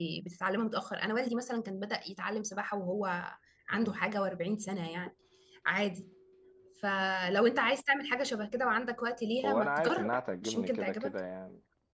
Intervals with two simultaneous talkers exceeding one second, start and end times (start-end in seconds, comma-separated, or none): 9.4-11.1